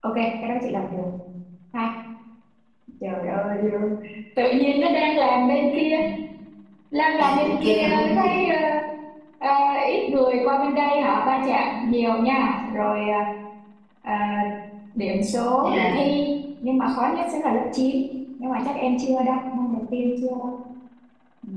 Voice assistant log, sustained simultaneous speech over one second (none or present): present